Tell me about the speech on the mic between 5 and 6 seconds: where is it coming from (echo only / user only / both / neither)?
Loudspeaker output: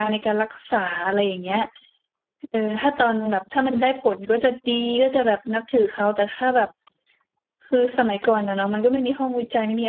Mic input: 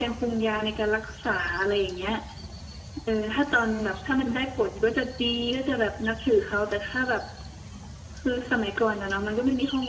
echo only